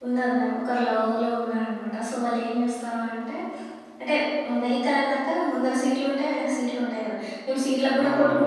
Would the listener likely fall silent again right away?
Yes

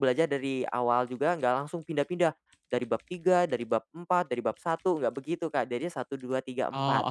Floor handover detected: Yes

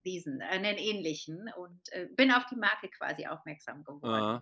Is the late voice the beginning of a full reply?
Yes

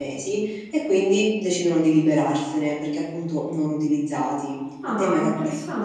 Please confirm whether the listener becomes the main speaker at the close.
Yes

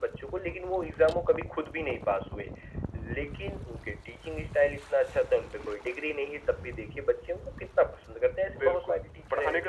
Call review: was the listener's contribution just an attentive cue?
No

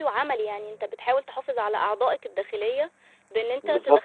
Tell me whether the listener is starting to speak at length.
No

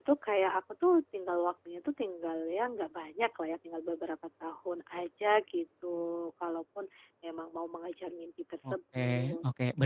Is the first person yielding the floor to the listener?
Yes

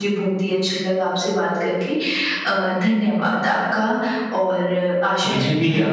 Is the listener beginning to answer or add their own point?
Yes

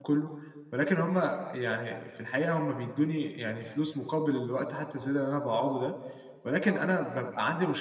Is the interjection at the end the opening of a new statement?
No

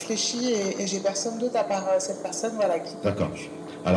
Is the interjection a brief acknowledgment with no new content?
No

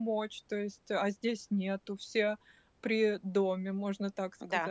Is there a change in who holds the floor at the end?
Yes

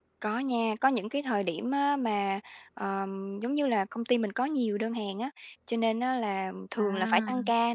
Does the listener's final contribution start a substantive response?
No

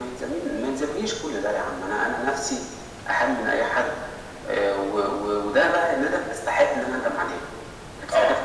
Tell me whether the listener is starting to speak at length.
No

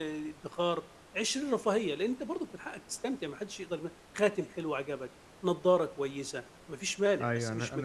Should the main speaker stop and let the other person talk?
Yes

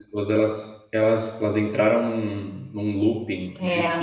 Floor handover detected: No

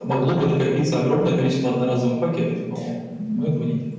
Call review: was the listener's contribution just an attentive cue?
No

